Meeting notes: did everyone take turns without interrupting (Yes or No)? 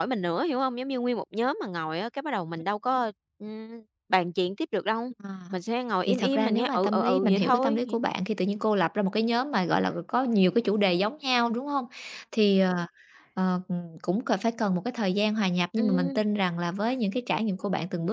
No